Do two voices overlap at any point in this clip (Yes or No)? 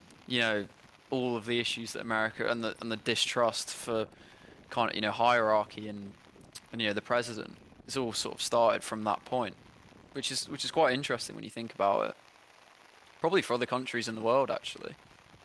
No